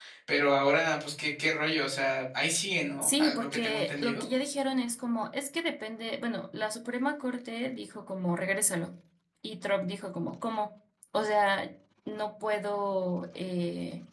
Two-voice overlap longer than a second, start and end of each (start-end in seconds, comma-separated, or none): 3.0-4.2